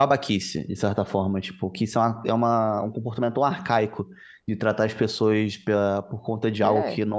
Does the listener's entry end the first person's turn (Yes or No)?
No